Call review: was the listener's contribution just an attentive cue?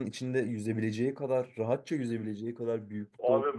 No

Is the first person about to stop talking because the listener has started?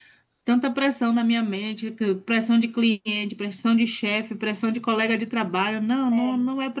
No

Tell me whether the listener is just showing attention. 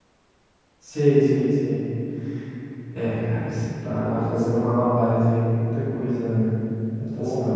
Yes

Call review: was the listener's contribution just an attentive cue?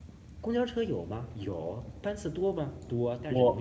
Yes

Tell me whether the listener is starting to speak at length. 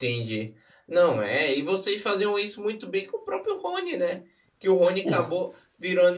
No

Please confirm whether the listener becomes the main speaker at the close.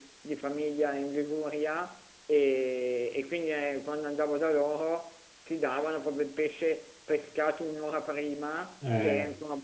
No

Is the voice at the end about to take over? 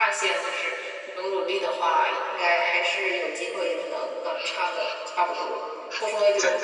No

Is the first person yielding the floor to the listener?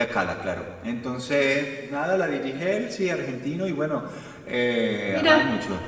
No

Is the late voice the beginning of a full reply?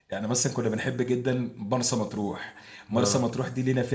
No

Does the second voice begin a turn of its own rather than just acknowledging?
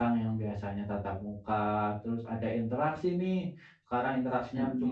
No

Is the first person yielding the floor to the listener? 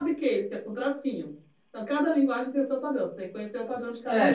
Yes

